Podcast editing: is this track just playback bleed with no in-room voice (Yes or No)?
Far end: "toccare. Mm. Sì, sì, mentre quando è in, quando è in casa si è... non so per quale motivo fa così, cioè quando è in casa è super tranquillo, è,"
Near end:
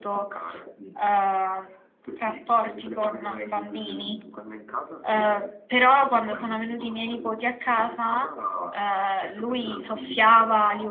No